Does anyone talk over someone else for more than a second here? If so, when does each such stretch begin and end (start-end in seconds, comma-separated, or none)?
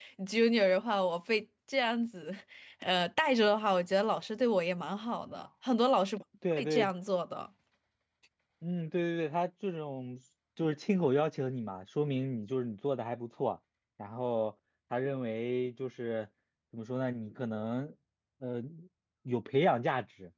none